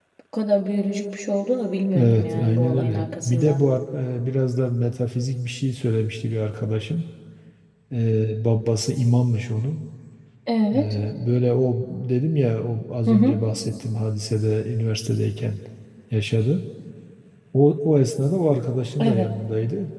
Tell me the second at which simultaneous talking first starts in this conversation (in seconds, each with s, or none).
1.9 s